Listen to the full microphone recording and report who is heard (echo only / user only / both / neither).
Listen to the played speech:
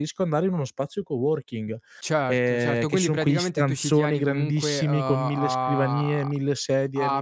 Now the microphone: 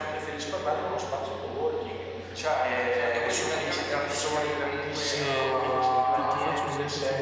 both